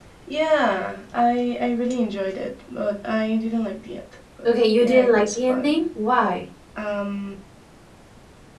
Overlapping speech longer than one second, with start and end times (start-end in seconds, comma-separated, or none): 4.4-5.8